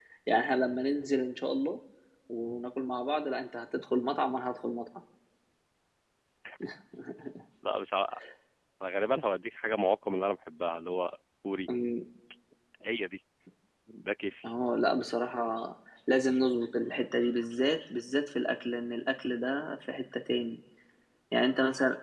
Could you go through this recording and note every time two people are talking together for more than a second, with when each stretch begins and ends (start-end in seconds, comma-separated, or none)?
none